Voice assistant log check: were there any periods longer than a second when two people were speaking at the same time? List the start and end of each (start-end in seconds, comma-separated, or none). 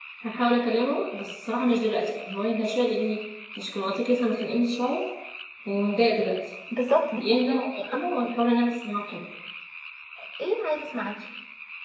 none